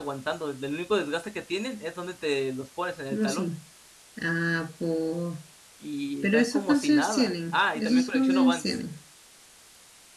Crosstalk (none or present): present